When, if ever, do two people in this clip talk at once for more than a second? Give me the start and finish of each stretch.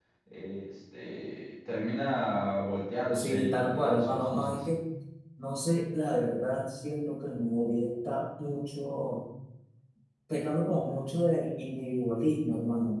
3.1-4.6

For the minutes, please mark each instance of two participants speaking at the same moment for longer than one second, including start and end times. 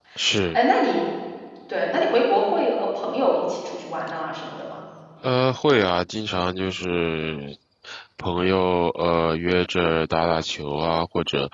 none

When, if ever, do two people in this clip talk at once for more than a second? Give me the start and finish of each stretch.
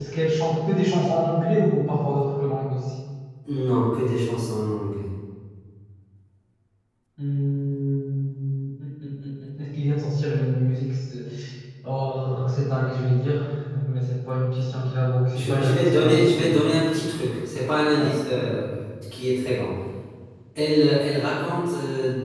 15.3-16.6

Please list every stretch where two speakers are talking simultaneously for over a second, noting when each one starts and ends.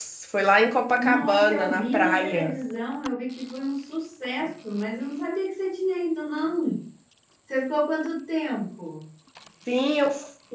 0.9-2.5

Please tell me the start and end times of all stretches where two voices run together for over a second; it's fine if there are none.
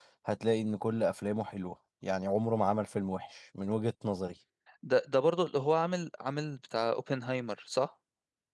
none

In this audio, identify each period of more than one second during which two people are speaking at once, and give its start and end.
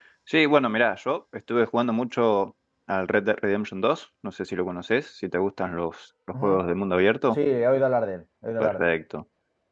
none

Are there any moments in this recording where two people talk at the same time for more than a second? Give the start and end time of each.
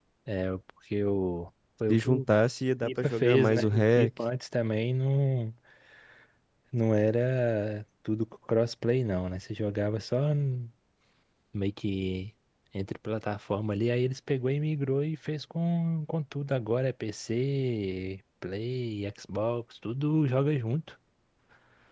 2.8-4.1

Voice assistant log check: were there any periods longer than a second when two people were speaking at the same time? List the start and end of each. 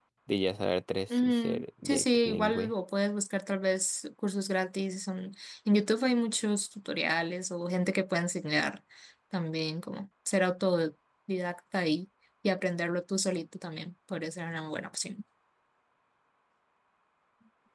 1.1-2.7

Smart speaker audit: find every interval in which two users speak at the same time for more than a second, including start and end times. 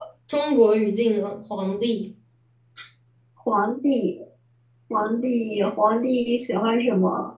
none

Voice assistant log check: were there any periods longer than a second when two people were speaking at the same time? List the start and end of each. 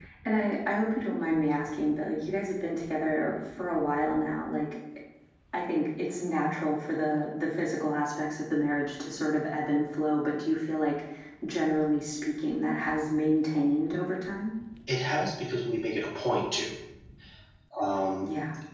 none

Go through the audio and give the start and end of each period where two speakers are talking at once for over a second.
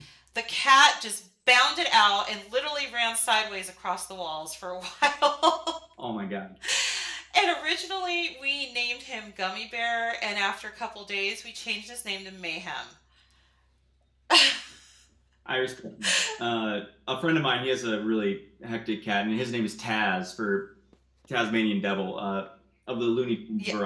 none

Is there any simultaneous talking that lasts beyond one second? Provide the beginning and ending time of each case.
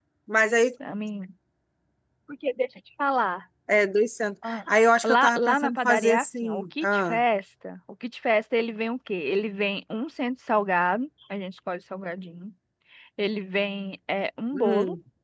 5.0-7.2

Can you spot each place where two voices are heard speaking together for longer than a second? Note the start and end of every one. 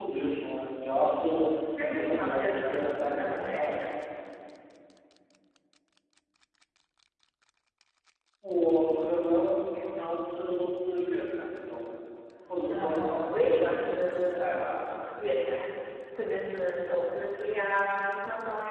1.9-3.8, 12.7-14.7

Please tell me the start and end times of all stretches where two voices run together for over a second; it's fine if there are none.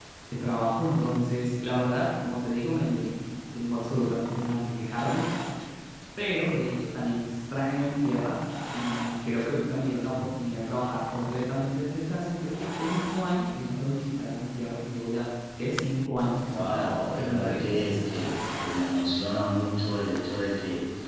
16.5-18.1

